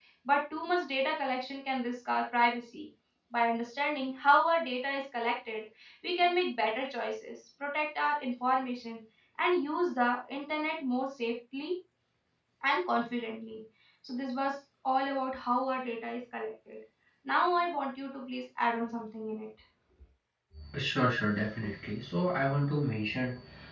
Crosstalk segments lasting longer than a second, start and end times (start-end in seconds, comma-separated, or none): none